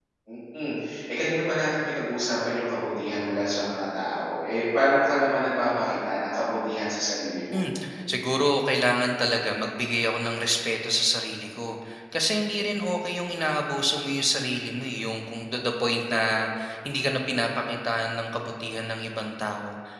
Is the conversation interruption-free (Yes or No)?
Yes